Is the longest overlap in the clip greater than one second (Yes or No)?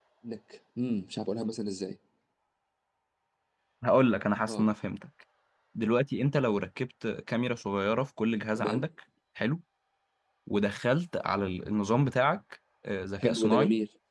No